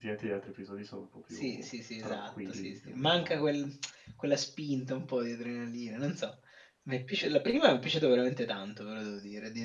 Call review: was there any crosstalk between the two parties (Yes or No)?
Yes